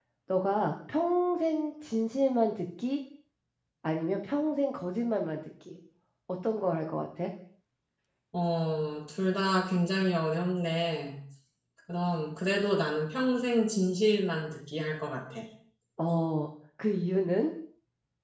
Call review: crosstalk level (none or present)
none